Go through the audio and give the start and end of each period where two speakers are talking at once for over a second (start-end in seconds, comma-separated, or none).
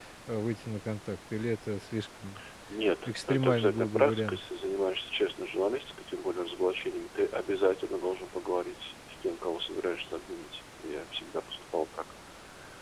3.1-4.4